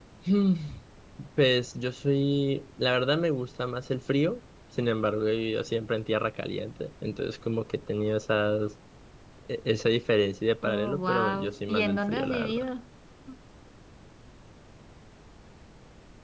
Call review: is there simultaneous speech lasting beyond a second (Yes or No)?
Yes